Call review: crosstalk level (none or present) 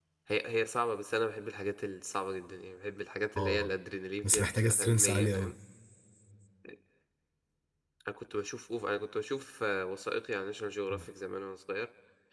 present